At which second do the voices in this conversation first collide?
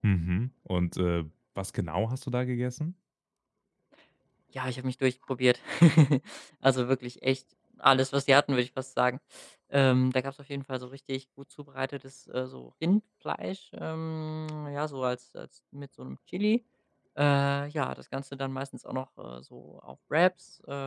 none

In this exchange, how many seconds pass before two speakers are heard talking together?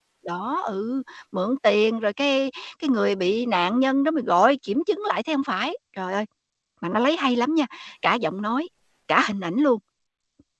none

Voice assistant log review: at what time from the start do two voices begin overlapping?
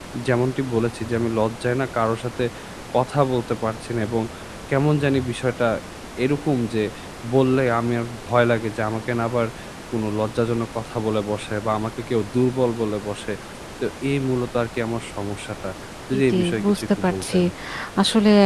16.1 s

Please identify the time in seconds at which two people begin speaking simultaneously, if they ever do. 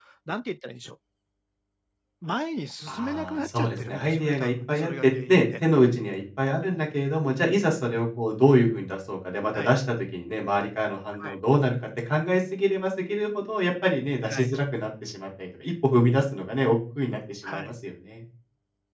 2.9 s

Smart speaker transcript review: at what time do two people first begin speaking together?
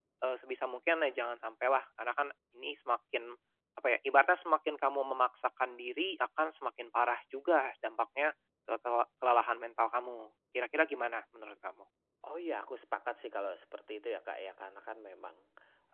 none

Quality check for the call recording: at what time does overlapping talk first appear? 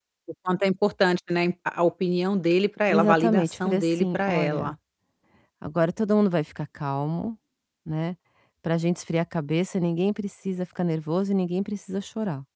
2.9 s

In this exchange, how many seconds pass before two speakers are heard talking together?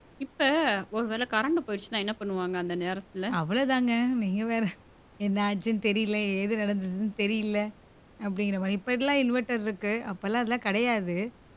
none

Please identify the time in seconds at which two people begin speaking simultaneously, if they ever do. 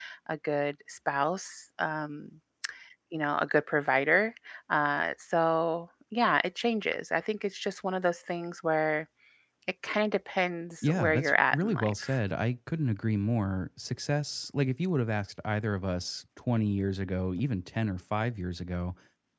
10.8 s

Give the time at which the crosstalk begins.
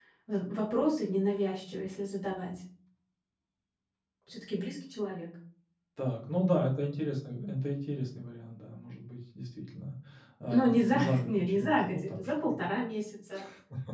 10.5 s

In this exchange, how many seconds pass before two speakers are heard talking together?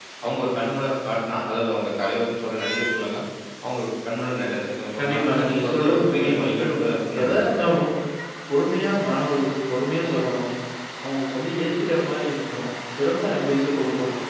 5.0 s

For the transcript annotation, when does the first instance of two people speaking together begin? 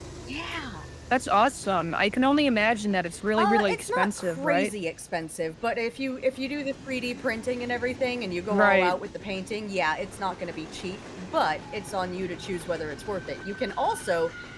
3.4 s

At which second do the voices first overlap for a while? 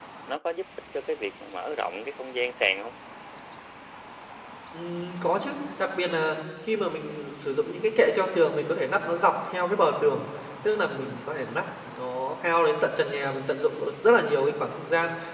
none

